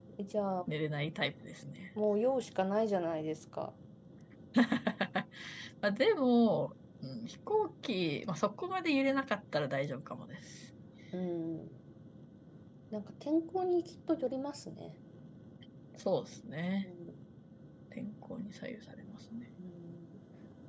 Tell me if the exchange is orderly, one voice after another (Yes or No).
Yes